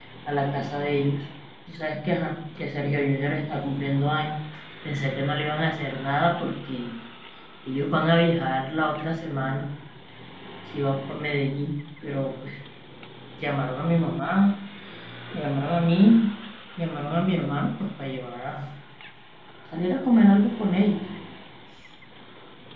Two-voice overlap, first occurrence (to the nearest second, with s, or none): none